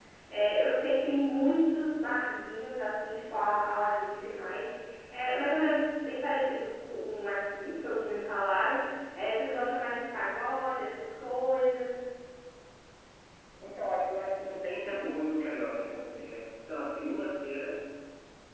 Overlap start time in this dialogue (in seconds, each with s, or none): none